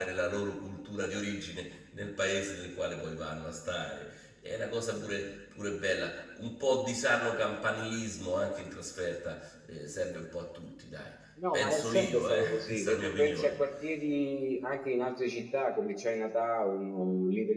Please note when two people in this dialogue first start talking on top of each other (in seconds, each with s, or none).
11.4 s